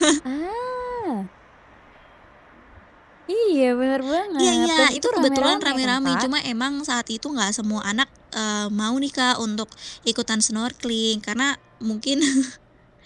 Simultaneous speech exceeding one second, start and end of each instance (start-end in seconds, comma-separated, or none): 4.4-6.3